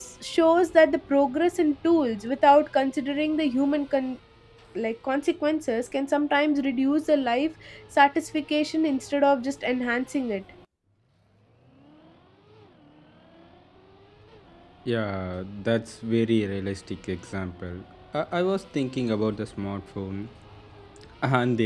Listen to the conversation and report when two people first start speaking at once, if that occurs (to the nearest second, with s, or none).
none